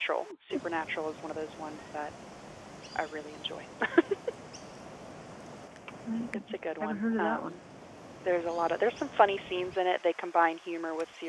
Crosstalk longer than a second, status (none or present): present